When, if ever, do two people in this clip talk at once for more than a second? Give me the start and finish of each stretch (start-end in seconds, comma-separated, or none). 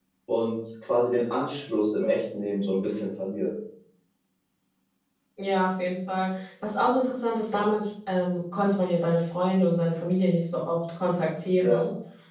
none